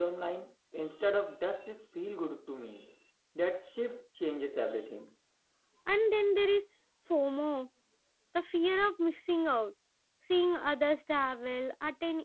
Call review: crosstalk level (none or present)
none